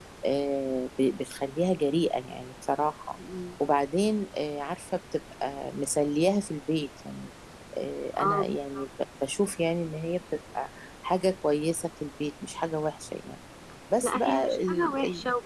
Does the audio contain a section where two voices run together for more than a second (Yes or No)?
Yes